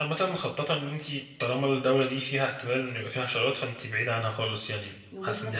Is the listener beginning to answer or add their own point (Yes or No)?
Yes